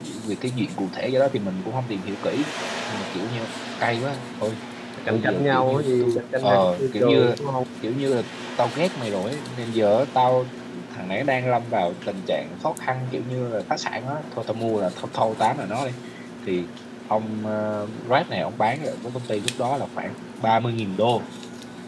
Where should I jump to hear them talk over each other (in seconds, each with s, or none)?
5.0 s